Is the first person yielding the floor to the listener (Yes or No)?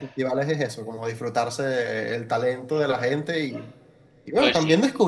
No